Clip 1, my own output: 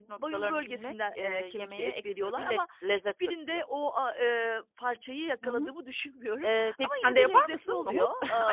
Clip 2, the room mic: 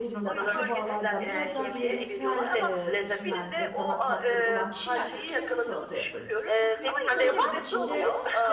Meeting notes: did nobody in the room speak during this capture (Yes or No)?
No